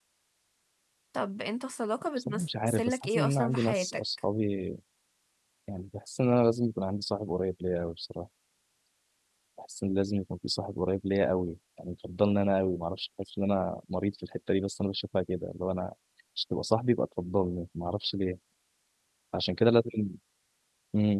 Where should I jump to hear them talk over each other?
2.2 s

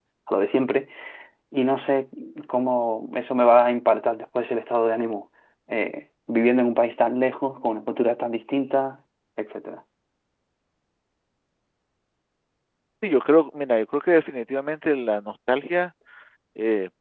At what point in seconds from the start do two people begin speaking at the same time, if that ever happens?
none

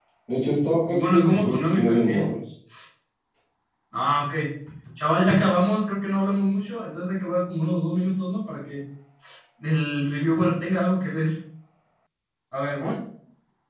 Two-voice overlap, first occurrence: 0.9 s

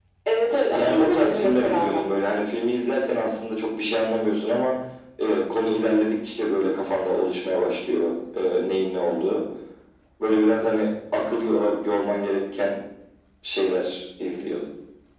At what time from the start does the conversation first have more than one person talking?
0.5 s

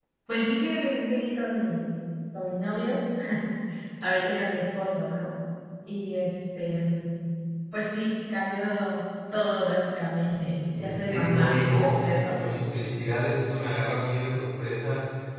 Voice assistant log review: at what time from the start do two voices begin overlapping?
10.7 s

